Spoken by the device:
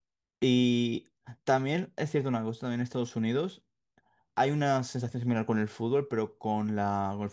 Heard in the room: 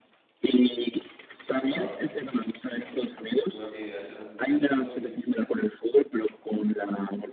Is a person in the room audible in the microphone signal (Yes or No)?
Yes